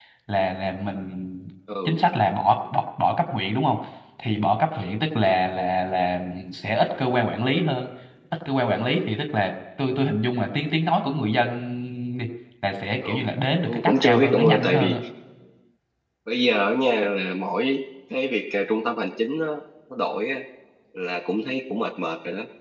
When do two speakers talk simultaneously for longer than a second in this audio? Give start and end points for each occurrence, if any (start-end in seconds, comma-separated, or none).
13.7-15.0